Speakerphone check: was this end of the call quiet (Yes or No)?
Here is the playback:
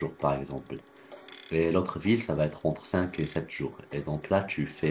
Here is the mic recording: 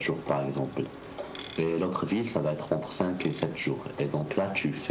Yes